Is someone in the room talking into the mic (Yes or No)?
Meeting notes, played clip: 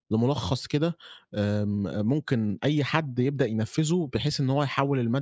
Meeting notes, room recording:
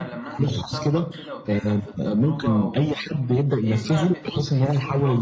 Yes